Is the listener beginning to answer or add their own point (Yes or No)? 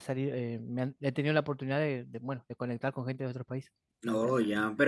Yes